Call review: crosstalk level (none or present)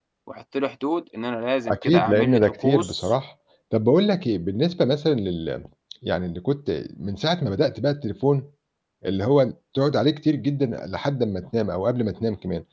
present